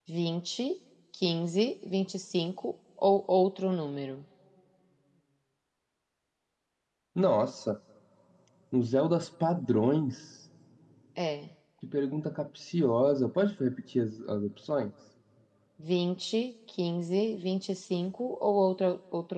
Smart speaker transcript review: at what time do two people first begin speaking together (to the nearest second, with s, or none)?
none